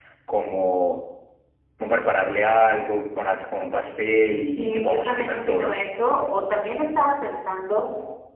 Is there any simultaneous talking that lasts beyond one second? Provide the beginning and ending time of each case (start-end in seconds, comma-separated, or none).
4.4-5.8